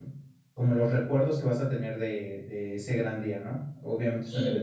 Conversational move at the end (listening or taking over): listening